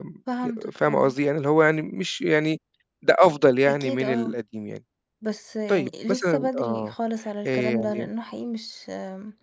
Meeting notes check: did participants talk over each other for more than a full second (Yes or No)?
Yes